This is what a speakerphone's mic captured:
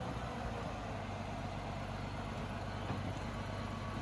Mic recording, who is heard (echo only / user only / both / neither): neither